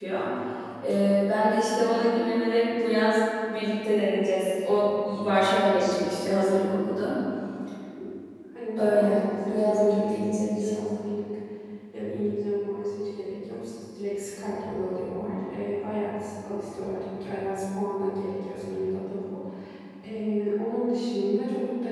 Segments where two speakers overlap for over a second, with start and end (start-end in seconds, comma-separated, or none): 8.8-11.0